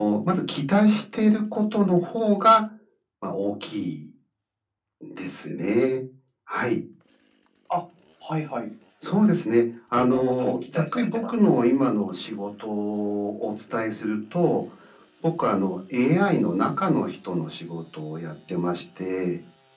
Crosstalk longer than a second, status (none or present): present